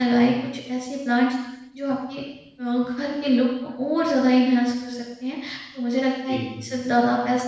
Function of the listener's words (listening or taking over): listening